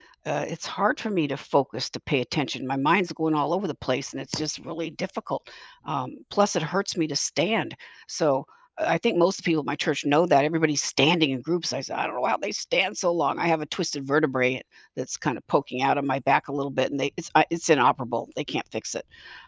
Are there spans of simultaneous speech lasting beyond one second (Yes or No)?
No